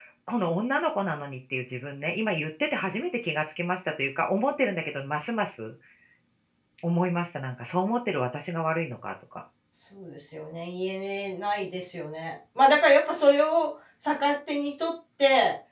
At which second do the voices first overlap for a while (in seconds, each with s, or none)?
none